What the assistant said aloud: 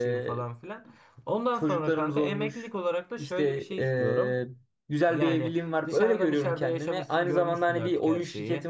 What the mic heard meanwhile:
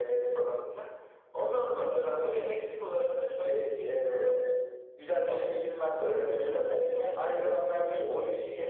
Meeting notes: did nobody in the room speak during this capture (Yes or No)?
Yes